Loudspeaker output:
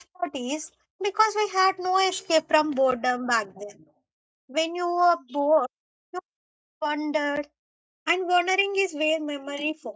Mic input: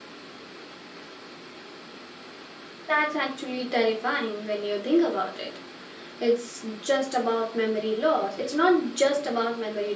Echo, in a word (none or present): none